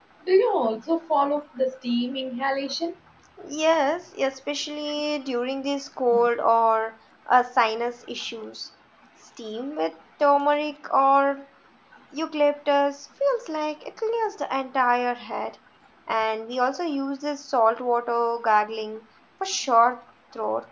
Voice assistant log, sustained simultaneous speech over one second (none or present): none